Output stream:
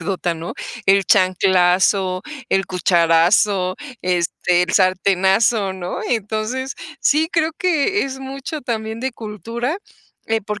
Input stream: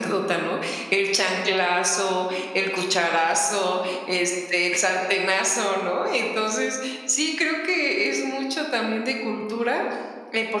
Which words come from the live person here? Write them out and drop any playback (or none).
none